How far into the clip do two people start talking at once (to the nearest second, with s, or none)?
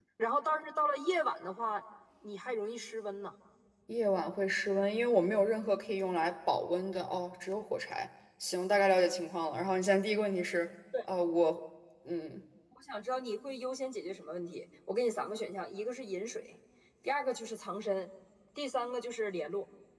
none